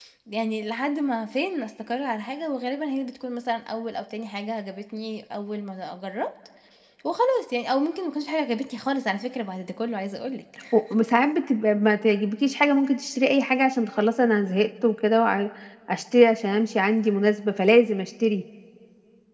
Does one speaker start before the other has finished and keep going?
No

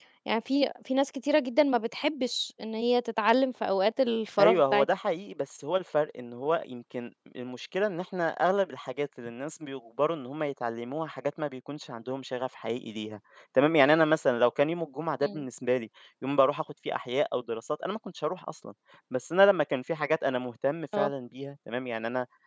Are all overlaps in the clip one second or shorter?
Yes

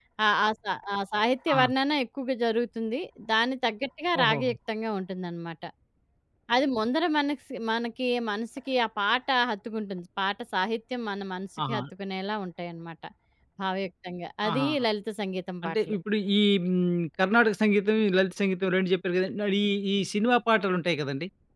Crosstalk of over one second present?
No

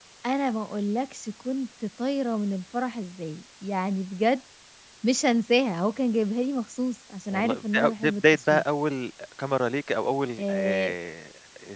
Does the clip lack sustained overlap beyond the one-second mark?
No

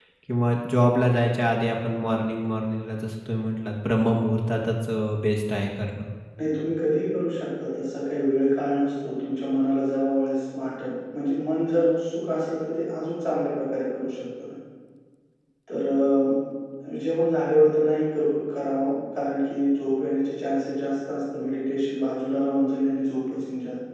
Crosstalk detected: No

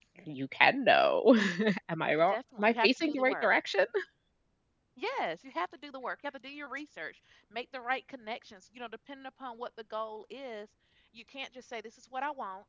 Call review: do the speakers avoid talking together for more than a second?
No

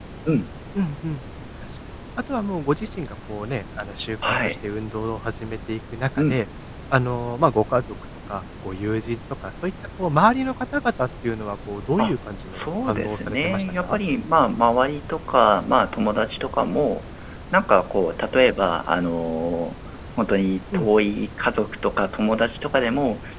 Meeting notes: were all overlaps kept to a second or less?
No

